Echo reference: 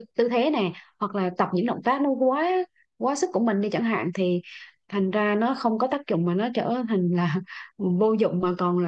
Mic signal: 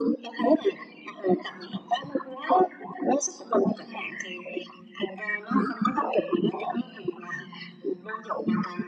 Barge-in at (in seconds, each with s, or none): none